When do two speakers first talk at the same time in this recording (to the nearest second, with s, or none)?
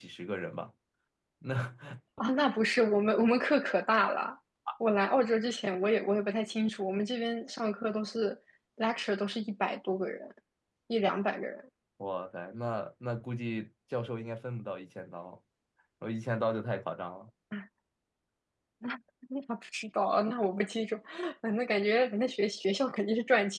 none